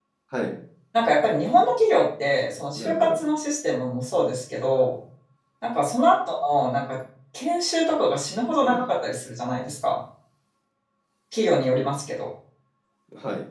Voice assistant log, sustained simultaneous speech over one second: none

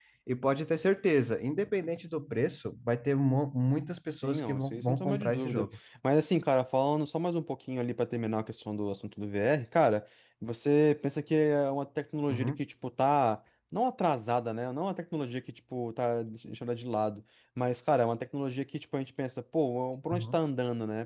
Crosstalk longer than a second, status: present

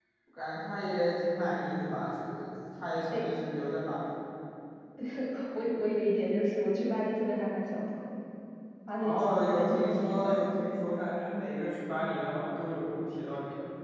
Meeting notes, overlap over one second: present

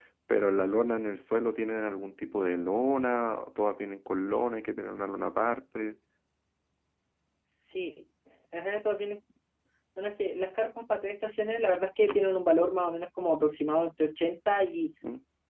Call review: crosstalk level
none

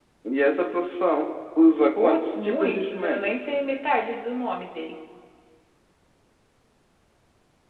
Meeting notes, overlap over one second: present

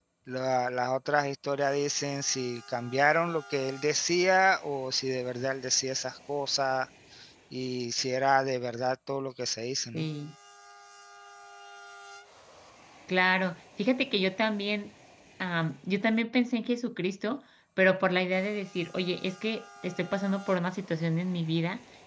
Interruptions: none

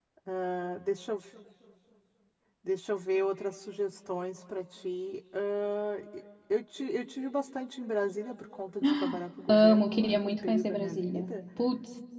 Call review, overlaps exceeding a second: present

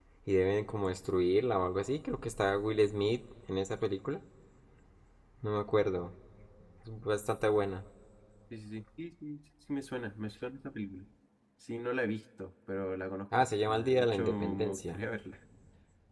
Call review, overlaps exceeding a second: present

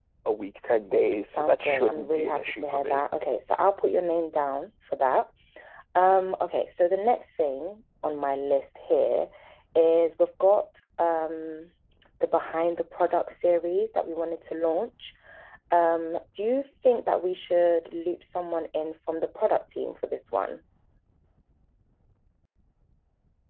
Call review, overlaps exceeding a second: present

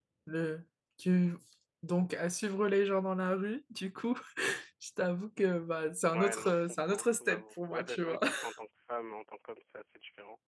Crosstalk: present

